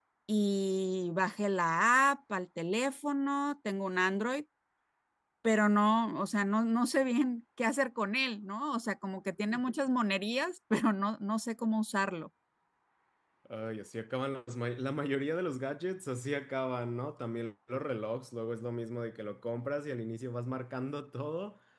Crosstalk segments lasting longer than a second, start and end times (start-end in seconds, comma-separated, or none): none